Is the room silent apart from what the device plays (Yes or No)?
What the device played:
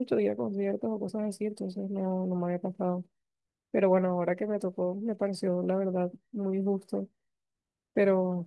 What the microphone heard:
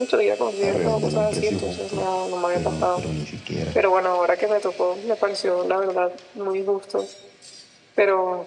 No